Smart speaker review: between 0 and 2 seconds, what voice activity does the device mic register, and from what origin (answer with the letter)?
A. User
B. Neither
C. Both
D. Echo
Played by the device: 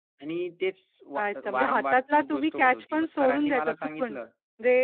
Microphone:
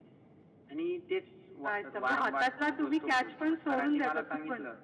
D